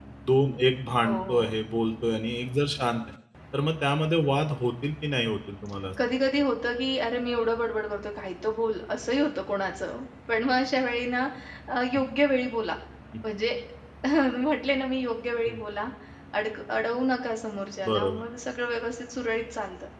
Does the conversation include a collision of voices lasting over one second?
No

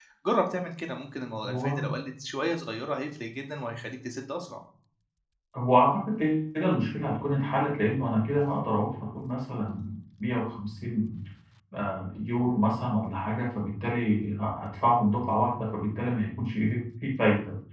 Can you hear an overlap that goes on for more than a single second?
No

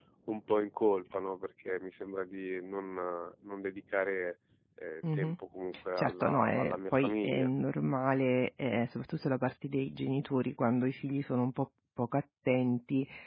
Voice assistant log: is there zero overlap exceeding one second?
No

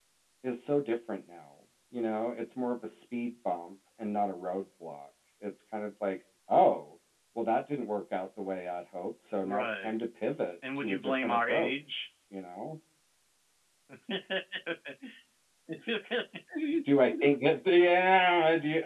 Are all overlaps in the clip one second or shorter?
No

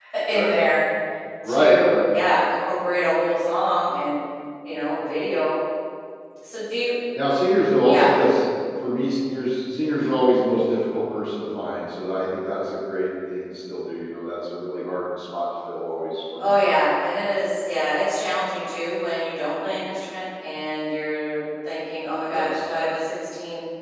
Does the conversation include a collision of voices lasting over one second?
No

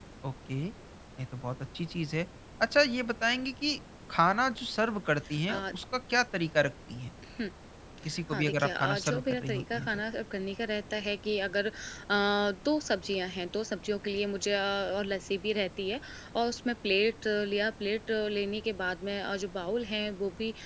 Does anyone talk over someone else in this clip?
Yes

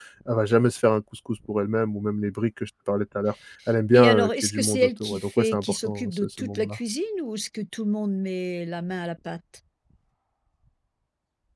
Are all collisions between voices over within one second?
No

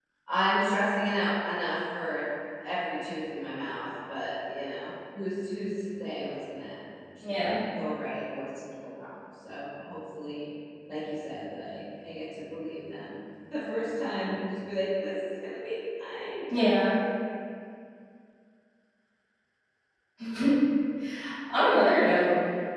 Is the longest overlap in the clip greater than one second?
No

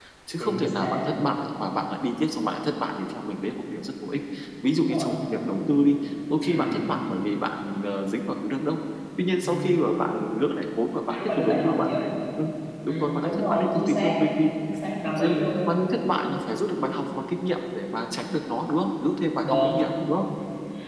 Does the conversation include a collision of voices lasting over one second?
Yes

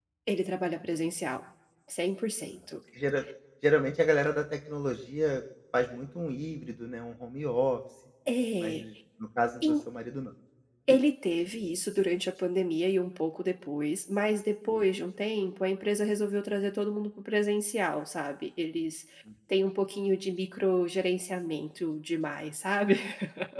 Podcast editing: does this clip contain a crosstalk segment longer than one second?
No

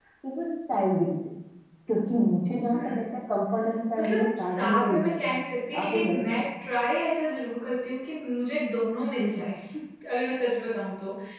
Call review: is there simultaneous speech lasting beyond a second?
Yes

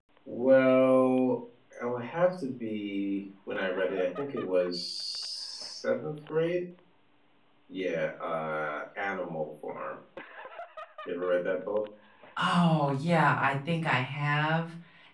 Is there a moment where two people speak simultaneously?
No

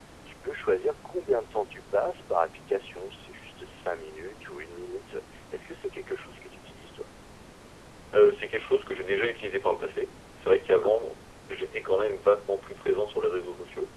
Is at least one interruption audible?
No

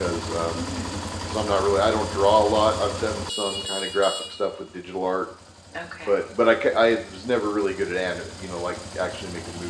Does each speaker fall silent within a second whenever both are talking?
Yes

